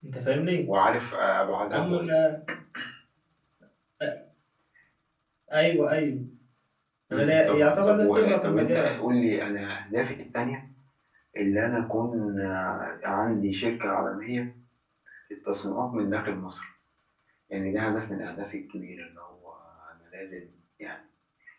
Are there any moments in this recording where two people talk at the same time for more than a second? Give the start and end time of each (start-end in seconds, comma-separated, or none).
7.1-9.0